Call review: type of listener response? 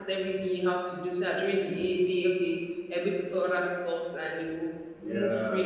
taking over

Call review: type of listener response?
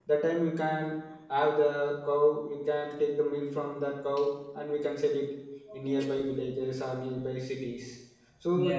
listening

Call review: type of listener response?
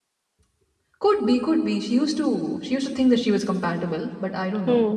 taking over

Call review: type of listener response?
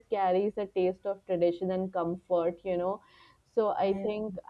listening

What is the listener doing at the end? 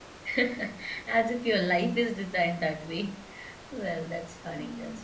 listening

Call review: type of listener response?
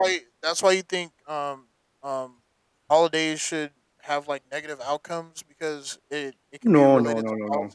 taking over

